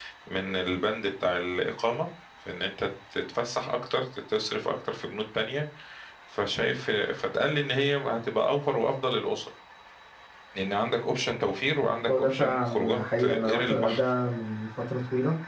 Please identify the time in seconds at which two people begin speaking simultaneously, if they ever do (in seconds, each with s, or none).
12.1 s